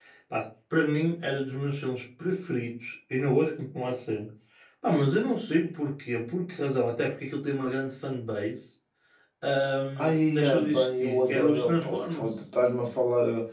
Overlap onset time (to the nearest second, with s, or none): 10 s